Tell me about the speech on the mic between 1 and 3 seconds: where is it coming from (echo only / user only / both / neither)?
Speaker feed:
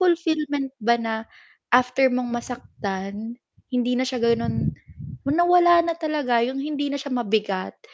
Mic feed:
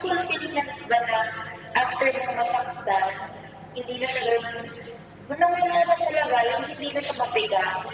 echo only